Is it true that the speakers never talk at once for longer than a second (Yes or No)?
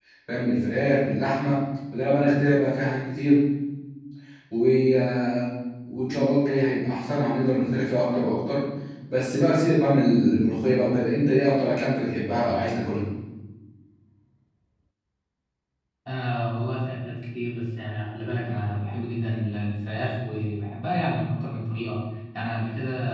Yes